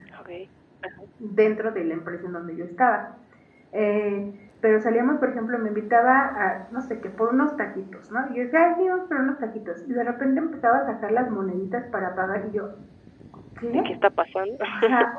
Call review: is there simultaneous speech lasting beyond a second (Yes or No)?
No